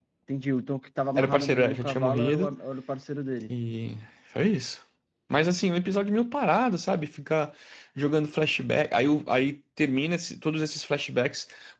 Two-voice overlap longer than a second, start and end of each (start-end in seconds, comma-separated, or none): 1.2-2.5